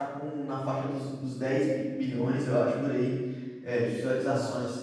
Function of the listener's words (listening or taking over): listening